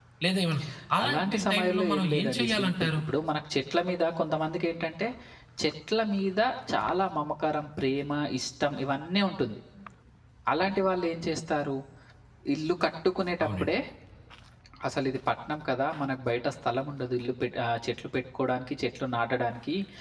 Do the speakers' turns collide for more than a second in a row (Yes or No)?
Yes